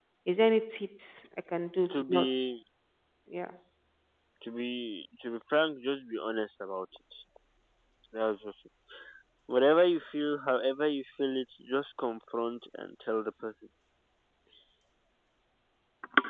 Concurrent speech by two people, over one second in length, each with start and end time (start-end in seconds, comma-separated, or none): none